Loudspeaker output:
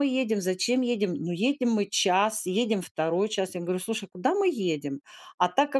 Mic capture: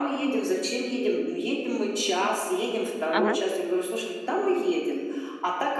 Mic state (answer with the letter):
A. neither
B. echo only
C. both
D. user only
C